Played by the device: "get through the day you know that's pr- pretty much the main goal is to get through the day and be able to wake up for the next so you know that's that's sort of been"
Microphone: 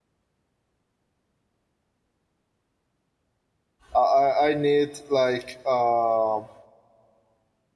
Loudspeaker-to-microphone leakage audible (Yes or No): No